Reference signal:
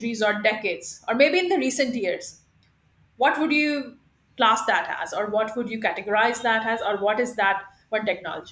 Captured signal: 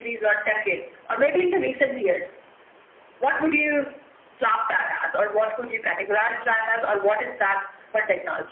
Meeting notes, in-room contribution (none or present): none